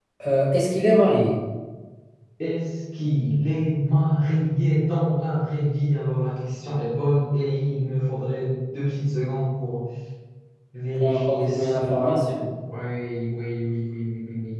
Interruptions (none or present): present